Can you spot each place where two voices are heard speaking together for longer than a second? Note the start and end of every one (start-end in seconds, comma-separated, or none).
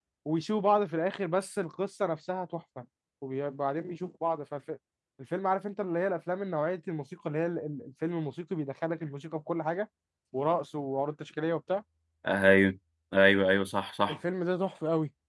none